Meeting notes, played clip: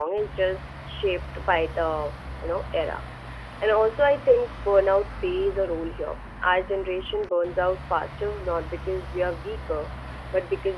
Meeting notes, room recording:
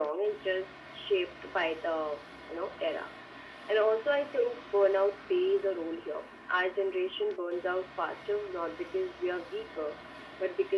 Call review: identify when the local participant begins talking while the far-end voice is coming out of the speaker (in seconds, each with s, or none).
none